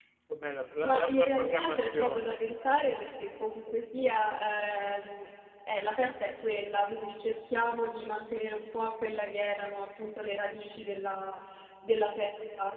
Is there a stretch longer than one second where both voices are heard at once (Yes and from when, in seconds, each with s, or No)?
Yes, from 0.8 s